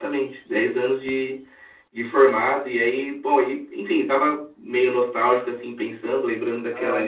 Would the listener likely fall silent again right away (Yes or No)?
Yes